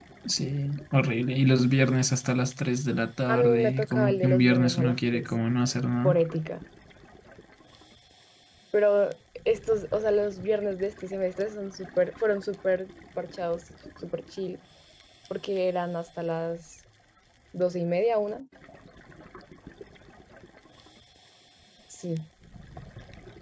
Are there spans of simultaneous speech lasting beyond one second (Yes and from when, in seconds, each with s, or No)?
Yes, from 3.3 s